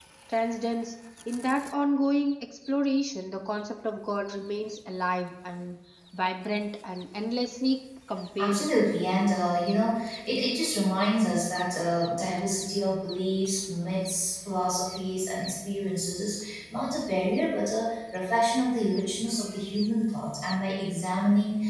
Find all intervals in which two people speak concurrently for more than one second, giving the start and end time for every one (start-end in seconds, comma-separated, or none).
none